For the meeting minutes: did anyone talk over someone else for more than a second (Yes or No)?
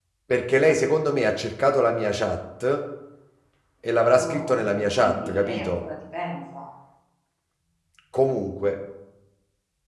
Yes